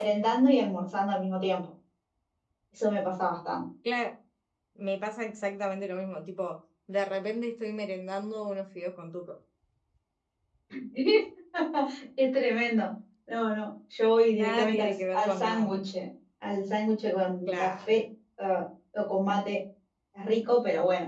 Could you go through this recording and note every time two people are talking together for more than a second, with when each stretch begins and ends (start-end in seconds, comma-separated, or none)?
14.3-15.7